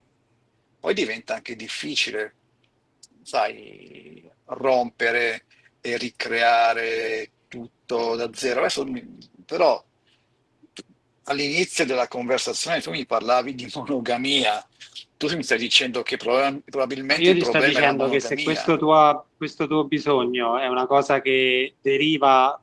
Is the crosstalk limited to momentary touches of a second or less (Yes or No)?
No